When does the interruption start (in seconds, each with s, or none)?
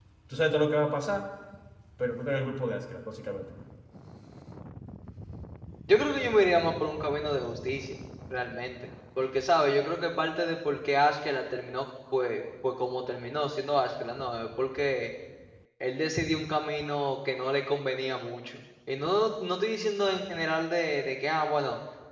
none